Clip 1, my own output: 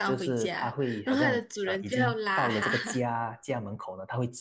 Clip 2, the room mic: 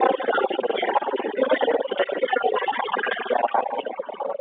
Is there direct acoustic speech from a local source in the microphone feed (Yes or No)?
No